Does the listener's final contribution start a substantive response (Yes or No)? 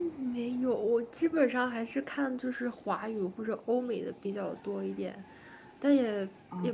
No